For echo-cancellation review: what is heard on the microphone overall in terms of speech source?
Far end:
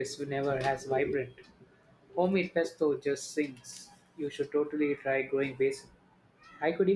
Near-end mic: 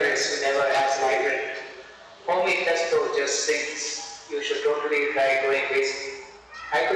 echo only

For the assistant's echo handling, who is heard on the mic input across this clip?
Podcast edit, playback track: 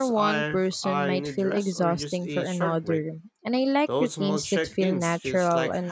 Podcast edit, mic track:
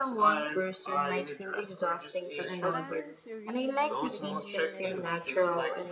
both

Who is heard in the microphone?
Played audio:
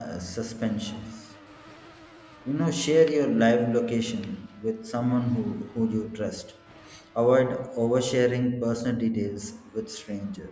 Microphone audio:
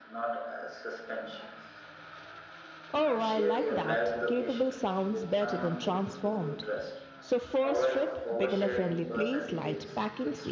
both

